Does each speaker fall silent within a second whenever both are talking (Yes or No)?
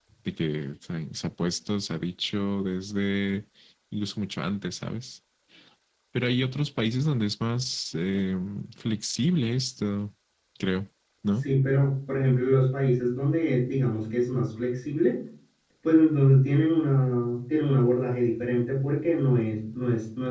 Yes